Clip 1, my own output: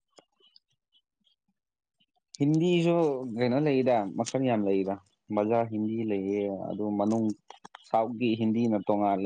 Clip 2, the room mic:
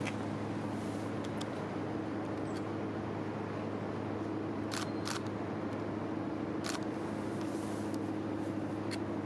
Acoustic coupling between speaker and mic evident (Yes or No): No